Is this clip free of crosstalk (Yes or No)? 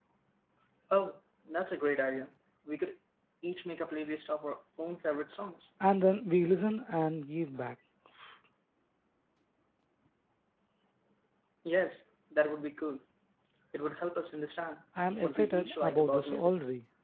No